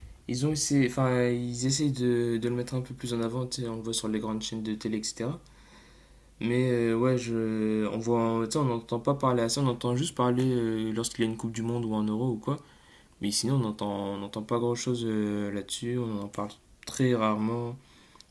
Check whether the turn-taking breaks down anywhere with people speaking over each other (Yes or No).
No